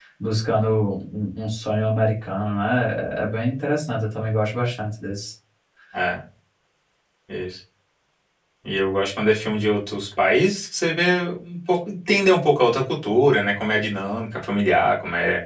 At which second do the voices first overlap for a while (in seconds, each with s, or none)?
none